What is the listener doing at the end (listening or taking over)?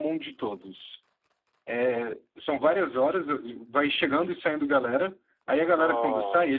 listening